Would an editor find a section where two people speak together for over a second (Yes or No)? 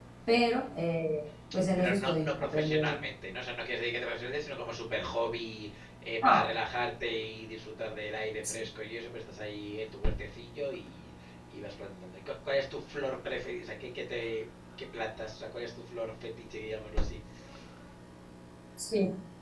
Yes